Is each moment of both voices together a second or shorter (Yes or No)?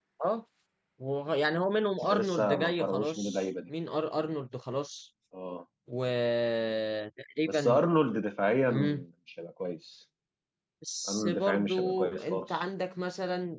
No